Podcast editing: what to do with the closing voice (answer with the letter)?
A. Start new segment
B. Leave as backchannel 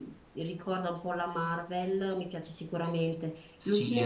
A